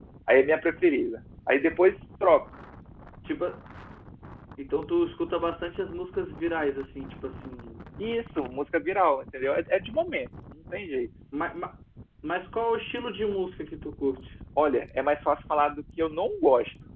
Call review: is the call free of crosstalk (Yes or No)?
Yes